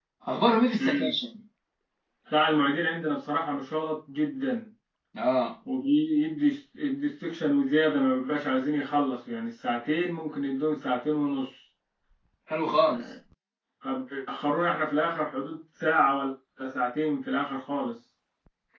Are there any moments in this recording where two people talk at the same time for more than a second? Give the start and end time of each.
none

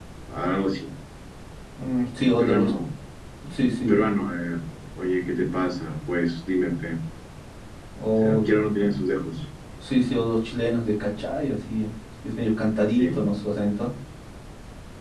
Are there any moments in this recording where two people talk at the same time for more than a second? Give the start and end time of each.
none

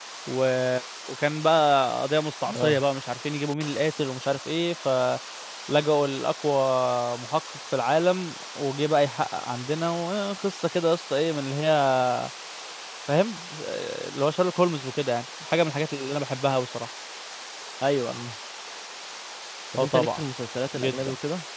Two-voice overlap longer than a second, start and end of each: none

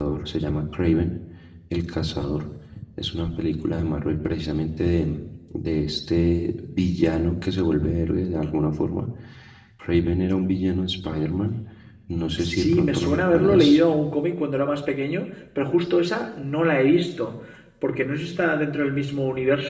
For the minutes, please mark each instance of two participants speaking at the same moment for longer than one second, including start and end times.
12.4-13.8

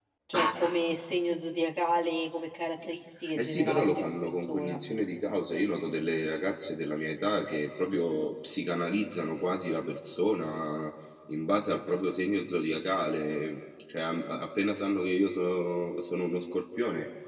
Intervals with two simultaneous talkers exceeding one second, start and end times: 3.4-4.8

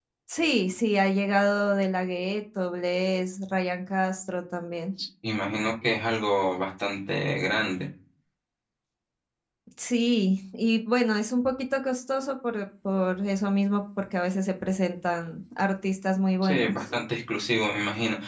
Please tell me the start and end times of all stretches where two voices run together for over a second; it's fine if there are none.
none

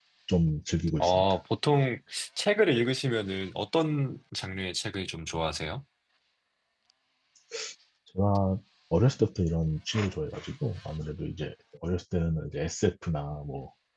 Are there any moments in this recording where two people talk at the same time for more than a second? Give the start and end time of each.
none

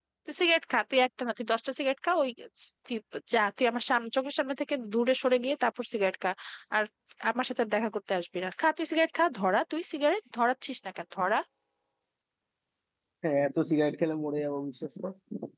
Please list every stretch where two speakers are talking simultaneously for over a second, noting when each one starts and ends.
none

